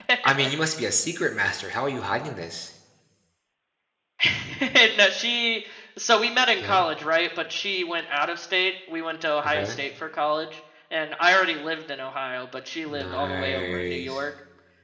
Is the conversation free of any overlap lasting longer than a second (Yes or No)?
No